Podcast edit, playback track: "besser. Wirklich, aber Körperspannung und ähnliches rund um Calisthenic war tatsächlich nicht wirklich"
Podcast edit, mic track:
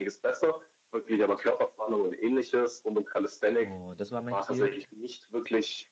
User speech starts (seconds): 3.6 s

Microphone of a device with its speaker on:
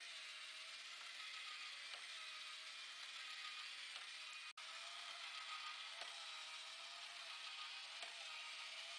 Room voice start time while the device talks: none

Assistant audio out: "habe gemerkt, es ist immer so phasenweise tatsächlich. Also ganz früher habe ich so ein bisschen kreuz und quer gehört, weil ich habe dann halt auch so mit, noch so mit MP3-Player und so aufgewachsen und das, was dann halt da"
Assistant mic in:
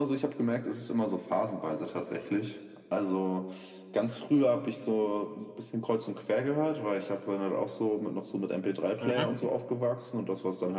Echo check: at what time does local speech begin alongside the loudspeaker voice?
9.0 s

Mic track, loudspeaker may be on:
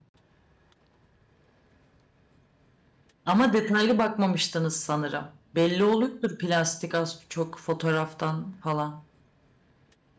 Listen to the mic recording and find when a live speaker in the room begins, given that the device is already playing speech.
3.2 s

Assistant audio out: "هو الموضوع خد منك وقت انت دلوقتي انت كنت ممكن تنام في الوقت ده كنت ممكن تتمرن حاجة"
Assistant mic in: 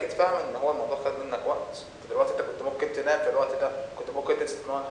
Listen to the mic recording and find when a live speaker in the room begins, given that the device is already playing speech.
none

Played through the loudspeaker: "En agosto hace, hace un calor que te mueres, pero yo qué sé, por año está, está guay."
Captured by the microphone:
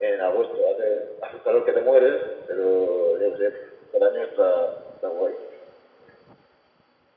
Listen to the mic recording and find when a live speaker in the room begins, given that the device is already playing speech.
none

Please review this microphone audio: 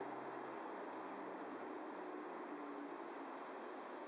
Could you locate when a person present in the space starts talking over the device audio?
none

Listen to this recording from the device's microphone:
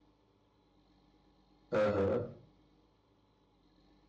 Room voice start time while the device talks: 1.7 s

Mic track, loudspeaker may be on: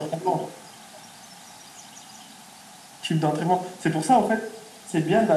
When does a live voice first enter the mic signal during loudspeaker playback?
none

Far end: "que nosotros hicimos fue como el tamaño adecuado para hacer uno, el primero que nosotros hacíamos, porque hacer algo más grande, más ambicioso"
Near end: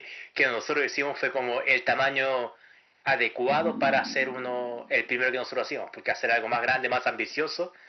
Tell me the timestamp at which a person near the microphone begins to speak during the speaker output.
3.4 s

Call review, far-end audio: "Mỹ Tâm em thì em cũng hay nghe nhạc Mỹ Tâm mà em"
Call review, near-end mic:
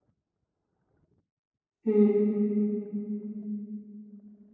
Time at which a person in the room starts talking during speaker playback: 1.8 s

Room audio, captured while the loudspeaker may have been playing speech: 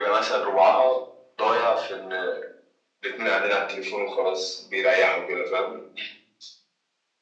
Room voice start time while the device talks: none

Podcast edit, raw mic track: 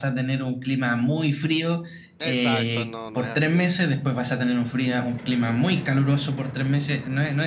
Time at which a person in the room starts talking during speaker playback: 2.2 s

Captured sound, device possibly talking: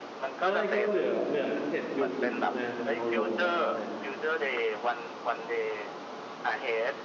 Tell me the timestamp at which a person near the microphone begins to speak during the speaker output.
0.4 s

